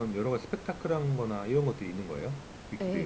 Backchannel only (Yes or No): No